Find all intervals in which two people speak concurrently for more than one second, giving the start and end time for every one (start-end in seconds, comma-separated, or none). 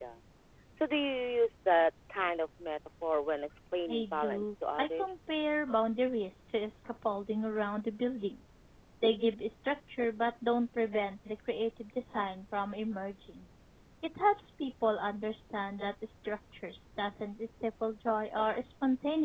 3.9-5.2